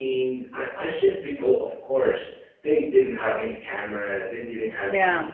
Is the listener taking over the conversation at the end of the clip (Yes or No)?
No